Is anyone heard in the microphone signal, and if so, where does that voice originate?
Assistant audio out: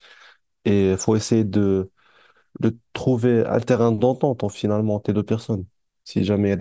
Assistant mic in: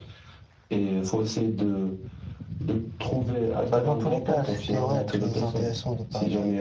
both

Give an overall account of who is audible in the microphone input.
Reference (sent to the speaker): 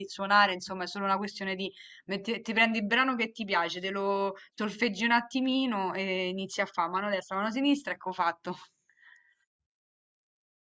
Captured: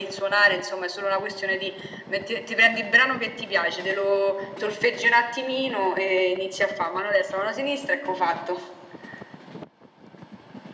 echo only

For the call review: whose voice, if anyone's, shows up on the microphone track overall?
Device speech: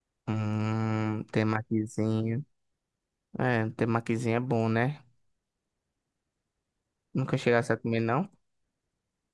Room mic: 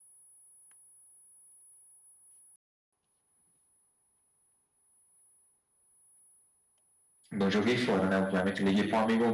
user only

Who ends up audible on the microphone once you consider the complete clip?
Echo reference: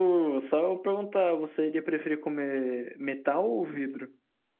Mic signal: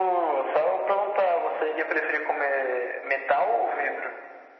echo only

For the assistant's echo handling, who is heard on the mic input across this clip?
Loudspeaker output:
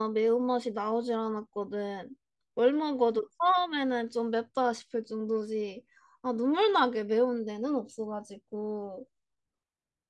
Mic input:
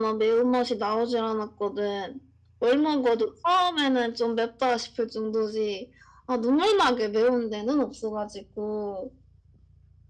echo only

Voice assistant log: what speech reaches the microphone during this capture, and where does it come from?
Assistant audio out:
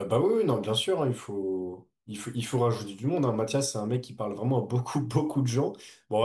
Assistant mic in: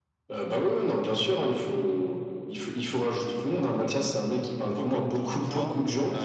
both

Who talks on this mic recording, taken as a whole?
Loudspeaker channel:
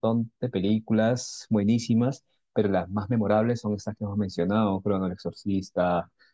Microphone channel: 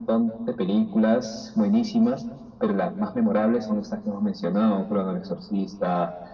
echo only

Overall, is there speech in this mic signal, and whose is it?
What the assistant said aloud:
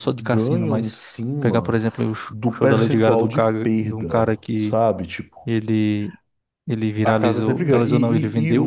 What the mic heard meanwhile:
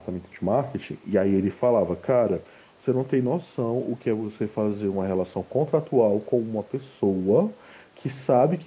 user only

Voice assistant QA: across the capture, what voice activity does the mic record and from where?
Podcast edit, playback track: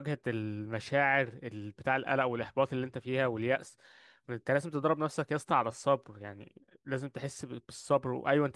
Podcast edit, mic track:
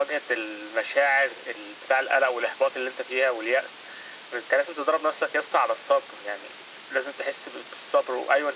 echo only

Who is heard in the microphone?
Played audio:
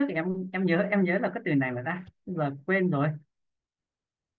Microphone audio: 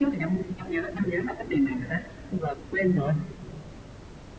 echo only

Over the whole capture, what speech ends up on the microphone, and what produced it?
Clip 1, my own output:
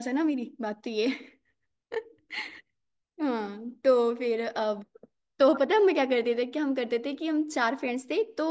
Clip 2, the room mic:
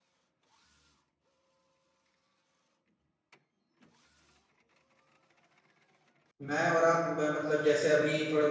user only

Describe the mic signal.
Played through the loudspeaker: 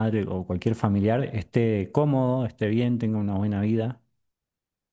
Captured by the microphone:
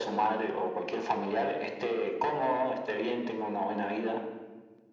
echo only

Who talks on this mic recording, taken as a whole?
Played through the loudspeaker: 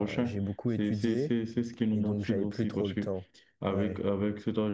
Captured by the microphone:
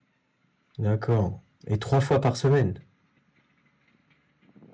user only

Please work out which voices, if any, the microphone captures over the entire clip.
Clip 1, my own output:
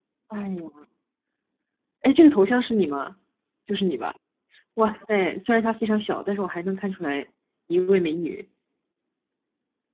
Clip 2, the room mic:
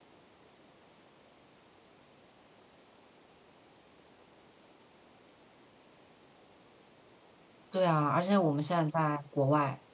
user only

